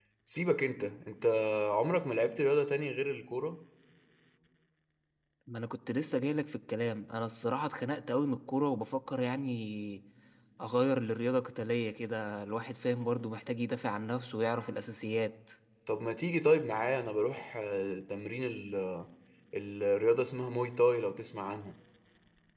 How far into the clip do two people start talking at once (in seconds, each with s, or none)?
none